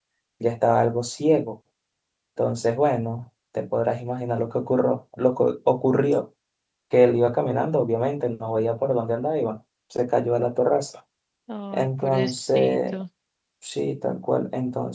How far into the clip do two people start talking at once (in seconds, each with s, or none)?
11.7 s